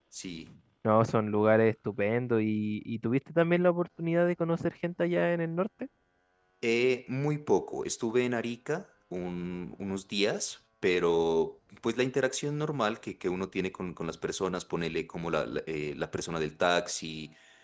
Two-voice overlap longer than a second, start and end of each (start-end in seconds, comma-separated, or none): none